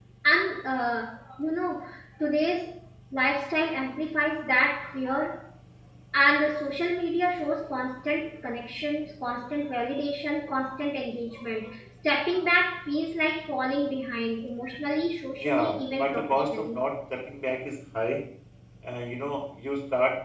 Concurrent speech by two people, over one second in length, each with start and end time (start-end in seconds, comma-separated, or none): 15.4-16.8